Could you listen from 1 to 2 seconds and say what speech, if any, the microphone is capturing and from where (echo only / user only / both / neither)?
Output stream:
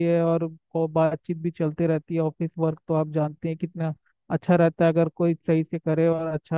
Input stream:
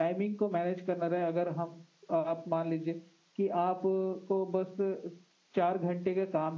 user only